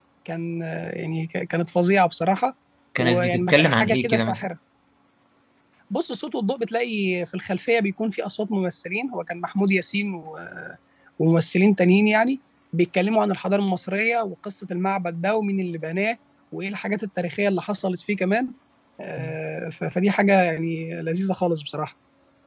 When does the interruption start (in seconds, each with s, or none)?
3.0 s